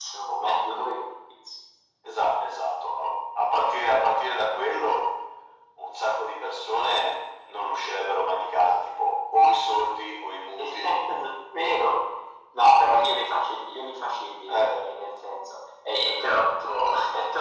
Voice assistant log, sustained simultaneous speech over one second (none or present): none